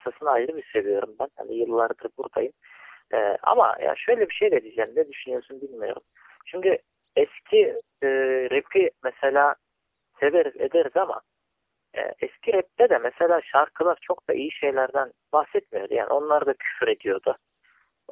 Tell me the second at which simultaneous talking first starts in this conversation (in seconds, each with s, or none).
none